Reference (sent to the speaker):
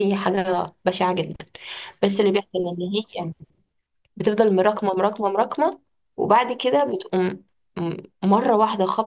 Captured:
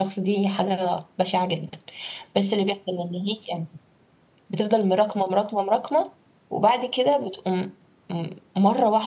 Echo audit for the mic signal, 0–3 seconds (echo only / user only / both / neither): echo only